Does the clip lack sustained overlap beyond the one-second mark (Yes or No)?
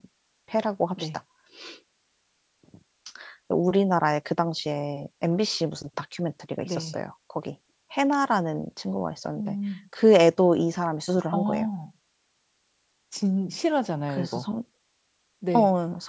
Yes